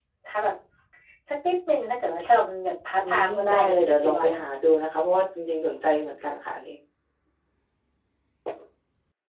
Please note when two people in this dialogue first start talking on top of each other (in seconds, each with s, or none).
3.0 s